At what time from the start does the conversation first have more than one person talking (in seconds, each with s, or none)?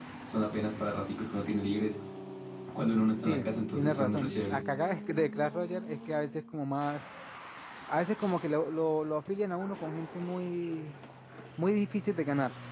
3.2 s